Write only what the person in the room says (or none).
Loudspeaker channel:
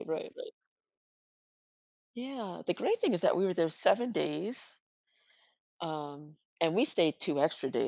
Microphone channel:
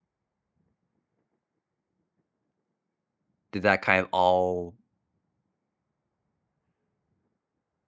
did that kind of all